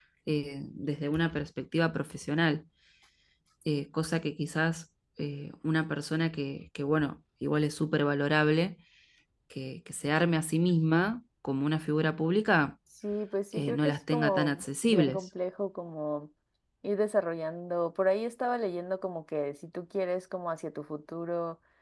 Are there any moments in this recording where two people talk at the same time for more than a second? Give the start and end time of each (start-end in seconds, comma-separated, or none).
13.6-15.3